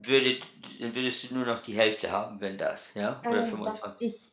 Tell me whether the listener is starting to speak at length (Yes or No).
Yes